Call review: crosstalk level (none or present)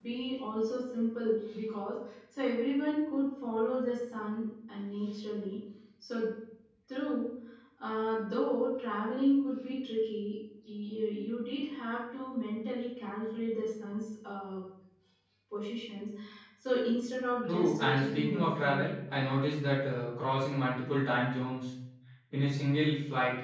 present